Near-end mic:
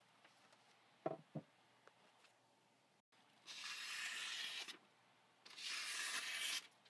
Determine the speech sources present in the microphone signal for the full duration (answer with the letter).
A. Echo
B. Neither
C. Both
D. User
B